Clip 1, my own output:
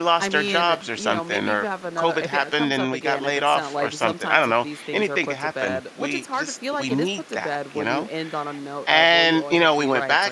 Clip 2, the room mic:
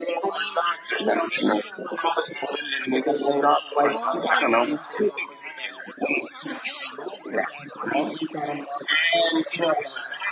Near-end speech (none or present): present